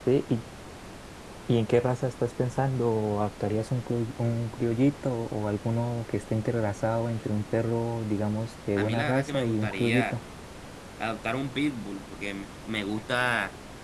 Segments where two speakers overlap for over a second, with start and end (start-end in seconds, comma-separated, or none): 8.8-10.2